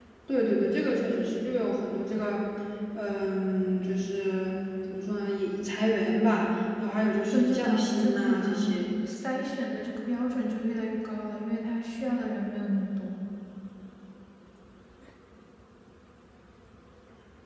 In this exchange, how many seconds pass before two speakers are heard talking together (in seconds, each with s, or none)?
7.3 s